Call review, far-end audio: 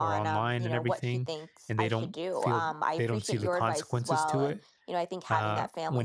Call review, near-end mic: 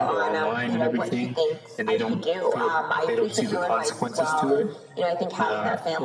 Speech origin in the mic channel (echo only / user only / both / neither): echo only